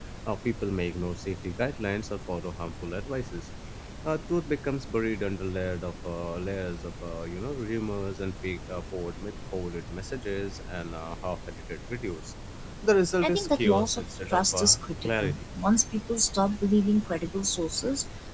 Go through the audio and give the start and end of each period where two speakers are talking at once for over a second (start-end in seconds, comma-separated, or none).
13.2-15.4